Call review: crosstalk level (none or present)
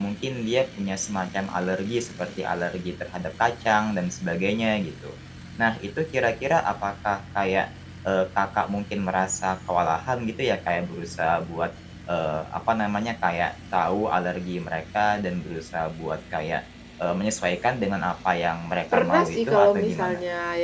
present